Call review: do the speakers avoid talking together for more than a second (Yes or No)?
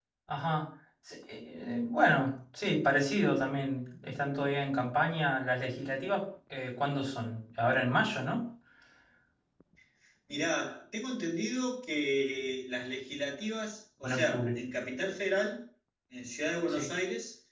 Yes